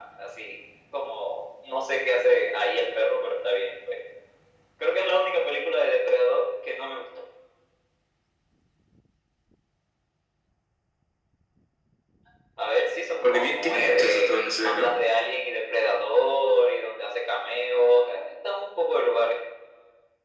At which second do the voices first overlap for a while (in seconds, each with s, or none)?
13.2 s